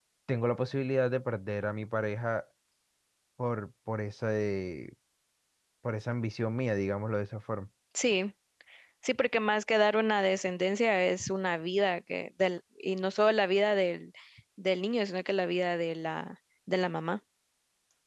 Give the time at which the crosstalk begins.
none

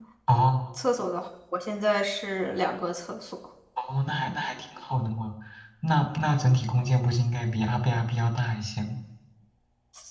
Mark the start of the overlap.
none

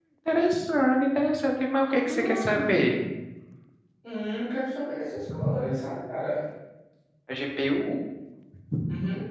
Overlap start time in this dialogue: 1.8 s

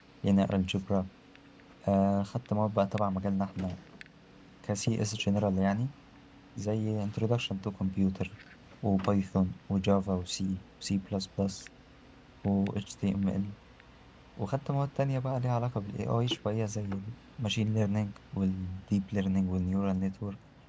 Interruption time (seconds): none

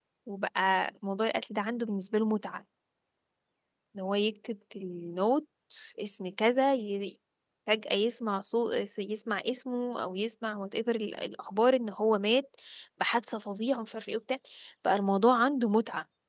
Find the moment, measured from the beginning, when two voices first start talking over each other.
none

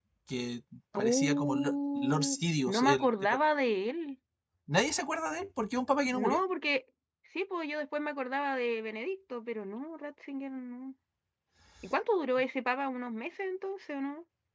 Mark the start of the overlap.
0.9 s

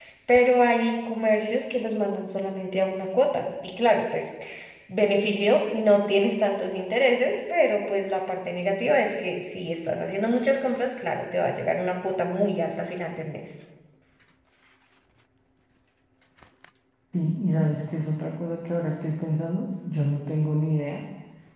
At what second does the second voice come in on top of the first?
none

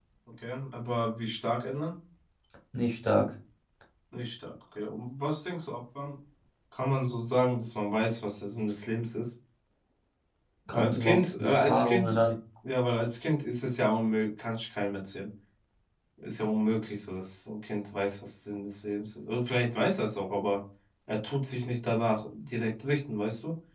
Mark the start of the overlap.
10.7 s

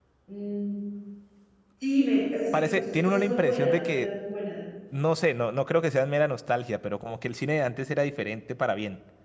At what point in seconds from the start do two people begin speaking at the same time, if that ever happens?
2.5 s

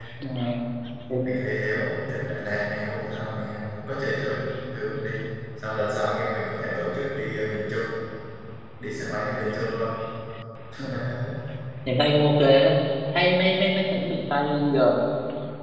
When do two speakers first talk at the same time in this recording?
none

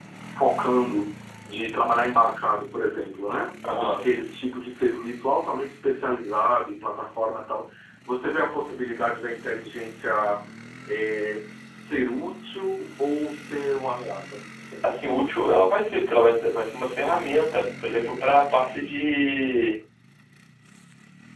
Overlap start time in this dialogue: none

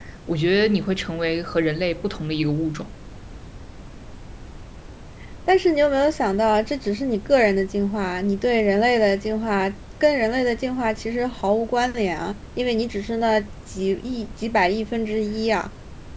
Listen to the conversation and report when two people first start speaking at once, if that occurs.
none

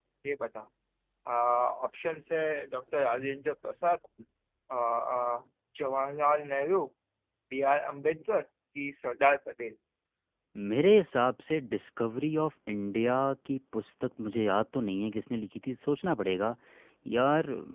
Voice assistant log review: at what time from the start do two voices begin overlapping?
none

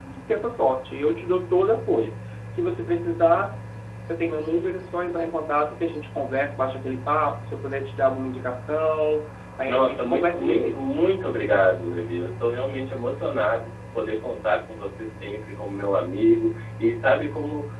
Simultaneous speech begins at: 9.7 s

